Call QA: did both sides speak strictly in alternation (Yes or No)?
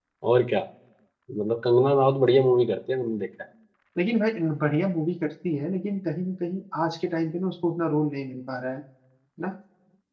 Yes